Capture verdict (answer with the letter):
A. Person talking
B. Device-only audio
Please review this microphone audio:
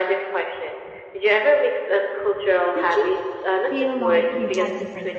A